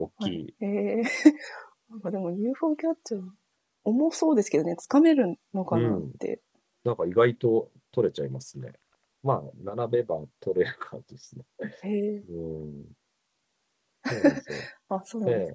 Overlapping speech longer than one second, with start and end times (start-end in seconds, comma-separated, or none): none